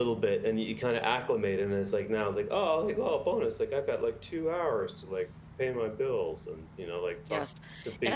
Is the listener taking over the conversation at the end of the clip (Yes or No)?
Yes